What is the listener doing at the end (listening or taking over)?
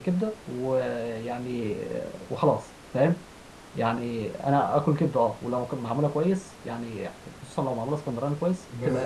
taking over